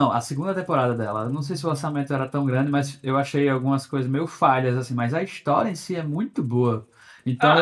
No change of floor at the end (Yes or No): No